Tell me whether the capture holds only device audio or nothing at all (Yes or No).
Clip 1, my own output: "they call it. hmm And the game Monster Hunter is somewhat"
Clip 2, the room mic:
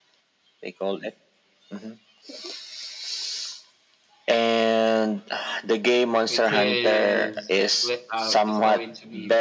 No